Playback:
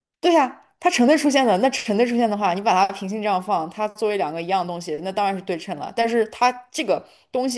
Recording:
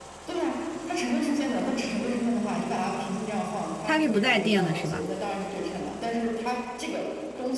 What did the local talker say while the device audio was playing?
它是不带电的，是吧？

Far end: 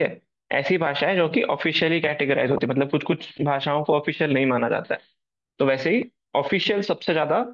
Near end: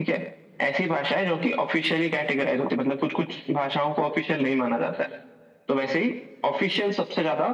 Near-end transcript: none

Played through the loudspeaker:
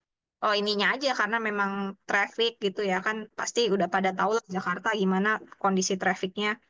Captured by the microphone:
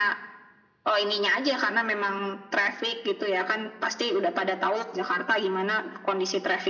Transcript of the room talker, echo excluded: none

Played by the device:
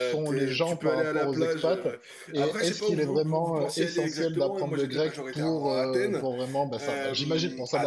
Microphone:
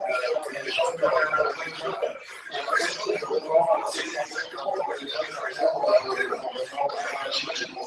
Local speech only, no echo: none

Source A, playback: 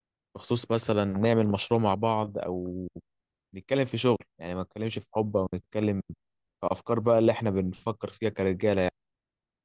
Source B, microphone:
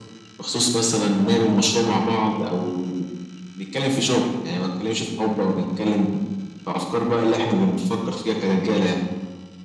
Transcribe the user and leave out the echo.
none

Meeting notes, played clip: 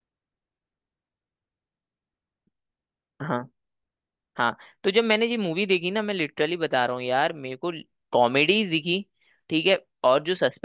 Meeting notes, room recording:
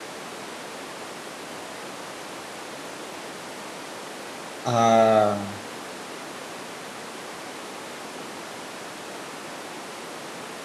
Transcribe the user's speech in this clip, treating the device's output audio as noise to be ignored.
हाँ

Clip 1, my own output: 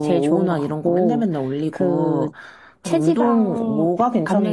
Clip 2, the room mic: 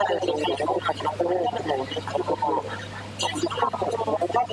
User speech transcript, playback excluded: none

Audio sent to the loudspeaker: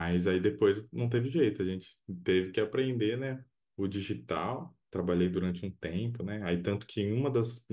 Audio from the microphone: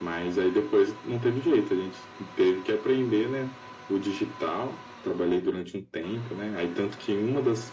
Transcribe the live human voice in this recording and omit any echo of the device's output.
none

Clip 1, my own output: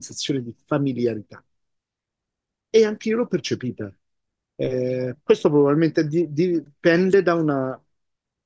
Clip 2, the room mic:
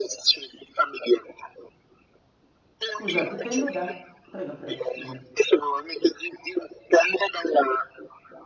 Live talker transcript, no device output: Scusa, dipende da... Prego, prego, scusami.

